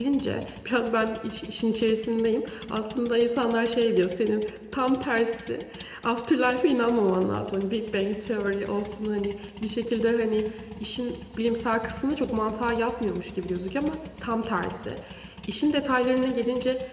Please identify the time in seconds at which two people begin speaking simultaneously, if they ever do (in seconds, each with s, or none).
none